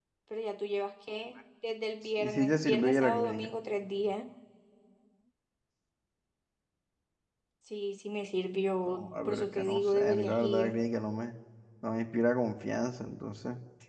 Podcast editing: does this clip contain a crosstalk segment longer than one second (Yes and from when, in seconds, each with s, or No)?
Yes, from 2.2 s